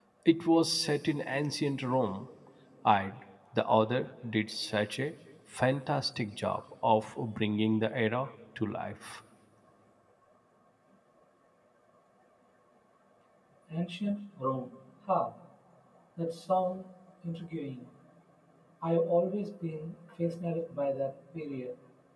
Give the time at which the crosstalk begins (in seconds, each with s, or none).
none